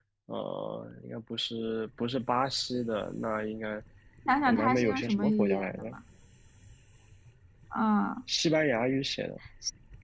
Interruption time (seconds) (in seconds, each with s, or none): 4.5 s